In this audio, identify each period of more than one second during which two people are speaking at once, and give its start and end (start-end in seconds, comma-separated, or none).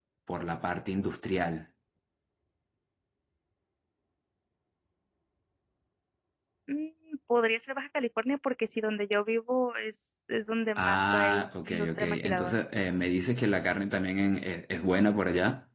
10.8-12.6